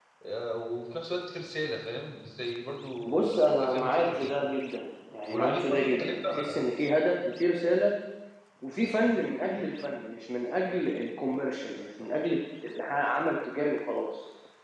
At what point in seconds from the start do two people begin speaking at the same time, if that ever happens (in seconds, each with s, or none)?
3.1 s